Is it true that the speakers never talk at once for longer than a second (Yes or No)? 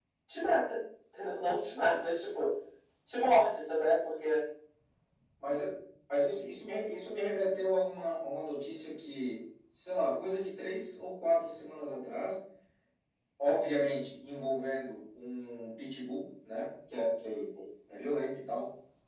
Yes